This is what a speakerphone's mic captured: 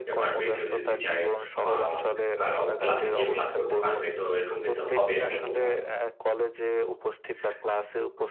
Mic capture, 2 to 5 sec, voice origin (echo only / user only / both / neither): both